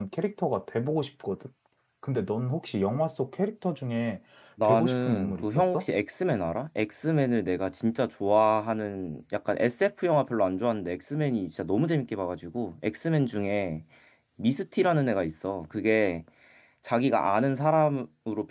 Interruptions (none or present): present